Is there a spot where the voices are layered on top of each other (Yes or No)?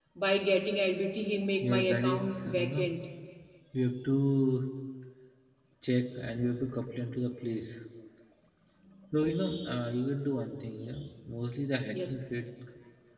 Yes